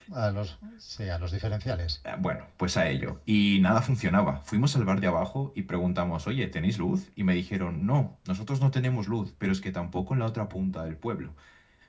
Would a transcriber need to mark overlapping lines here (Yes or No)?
No